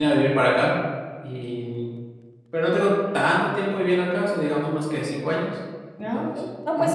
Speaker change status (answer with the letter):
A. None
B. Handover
B